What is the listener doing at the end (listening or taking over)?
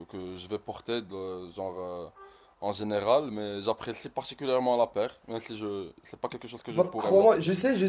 taking over